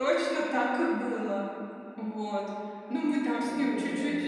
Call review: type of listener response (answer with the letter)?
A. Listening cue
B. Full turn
A